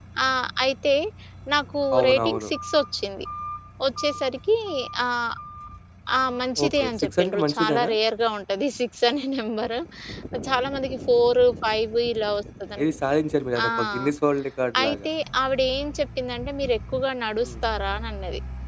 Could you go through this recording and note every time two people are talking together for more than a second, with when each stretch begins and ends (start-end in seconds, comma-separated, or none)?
6.7-7.9